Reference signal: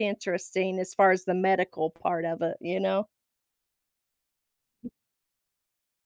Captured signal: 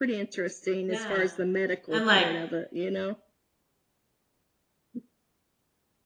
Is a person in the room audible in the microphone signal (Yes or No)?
Yes